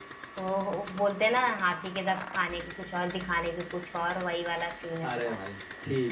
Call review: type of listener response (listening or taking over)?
taking over